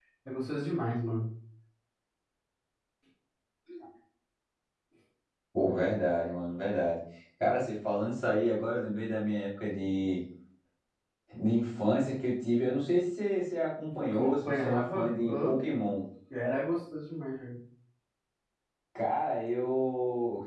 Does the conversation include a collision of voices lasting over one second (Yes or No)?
Yes